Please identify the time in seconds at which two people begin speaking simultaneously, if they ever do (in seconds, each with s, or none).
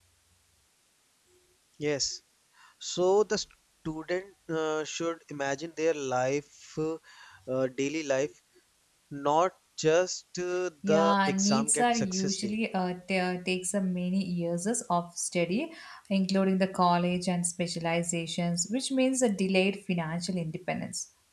10.8 s